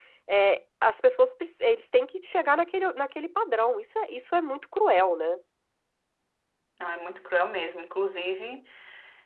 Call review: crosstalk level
none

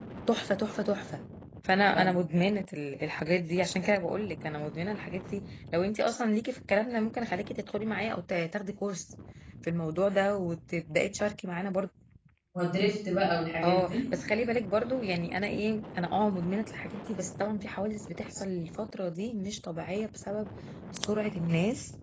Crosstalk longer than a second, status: none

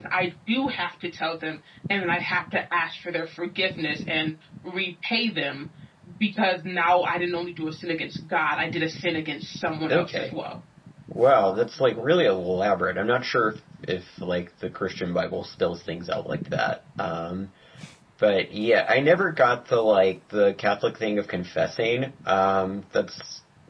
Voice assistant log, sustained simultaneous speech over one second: none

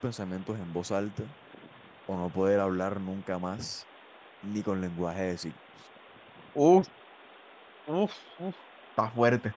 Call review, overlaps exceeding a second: none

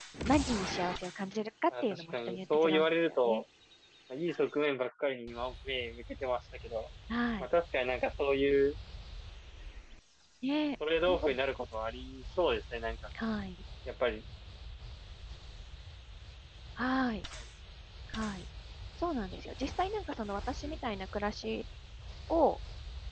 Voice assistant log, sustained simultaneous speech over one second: present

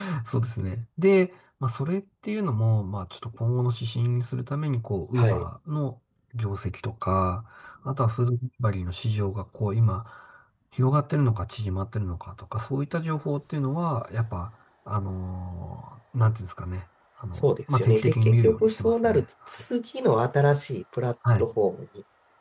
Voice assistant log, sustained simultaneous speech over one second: present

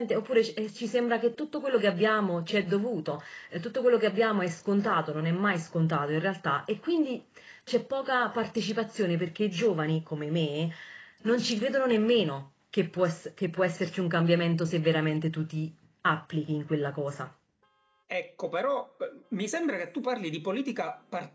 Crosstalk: none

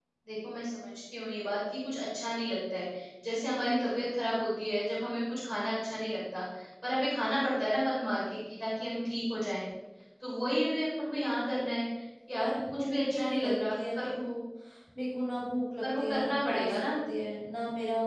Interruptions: present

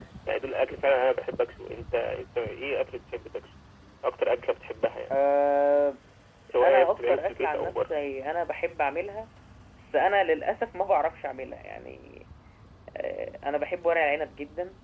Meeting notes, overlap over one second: present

